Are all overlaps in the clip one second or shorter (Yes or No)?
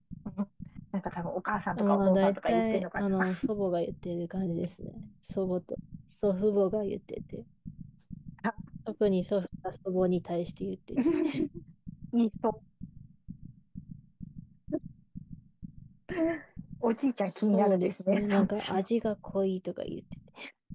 No